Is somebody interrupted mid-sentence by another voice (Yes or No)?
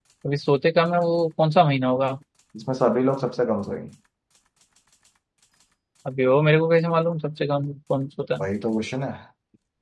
No